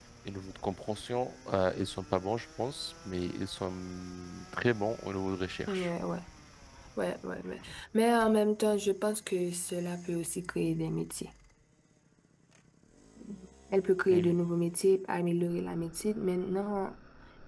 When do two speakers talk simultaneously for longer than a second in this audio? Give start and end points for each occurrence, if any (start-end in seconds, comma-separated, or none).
none